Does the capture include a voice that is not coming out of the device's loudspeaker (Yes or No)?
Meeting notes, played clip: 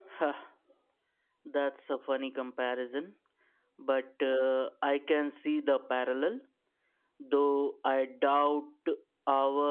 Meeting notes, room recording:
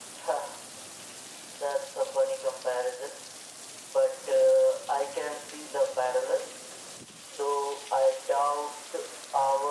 No